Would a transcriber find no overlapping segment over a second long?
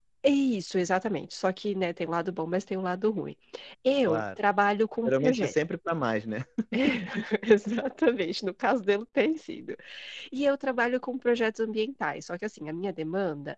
Yes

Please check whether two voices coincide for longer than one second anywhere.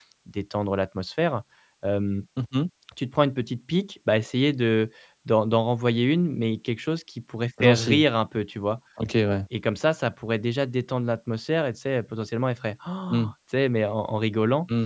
No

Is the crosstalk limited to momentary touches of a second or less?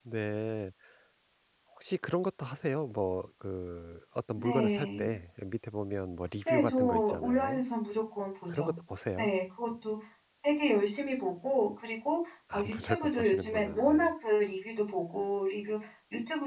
No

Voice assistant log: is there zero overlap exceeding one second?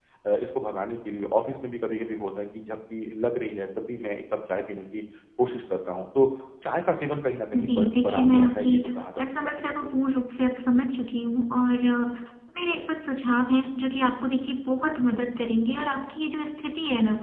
No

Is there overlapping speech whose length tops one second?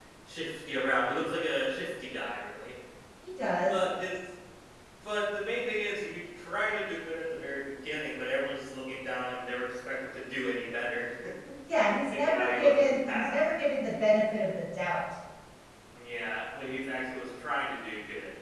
Yes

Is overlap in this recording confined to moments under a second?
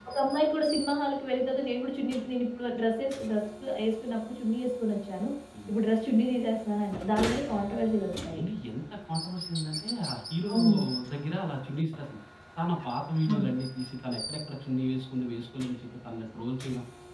Yes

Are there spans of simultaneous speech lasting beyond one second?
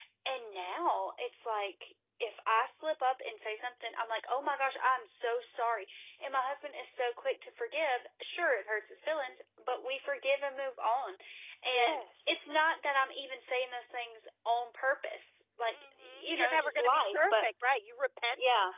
Yes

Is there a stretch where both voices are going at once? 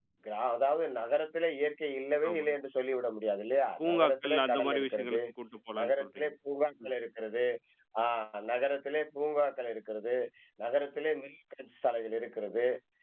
Yes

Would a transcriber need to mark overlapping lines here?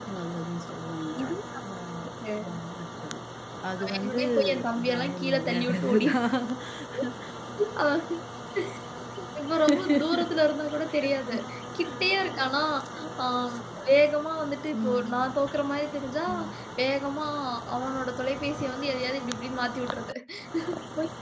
Yes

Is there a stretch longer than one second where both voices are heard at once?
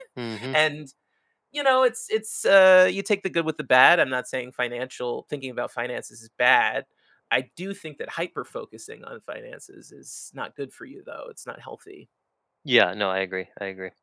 No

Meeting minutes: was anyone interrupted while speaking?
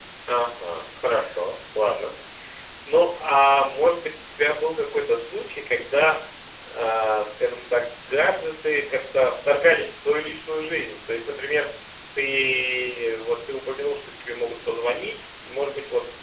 No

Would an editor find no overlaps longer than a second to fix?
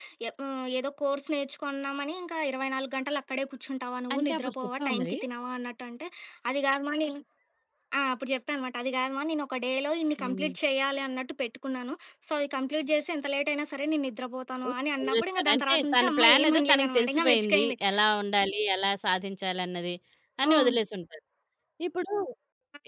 No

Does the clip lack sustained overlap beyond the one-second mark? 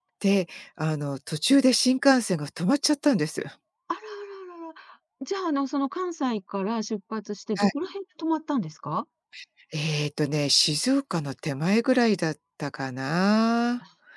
Yes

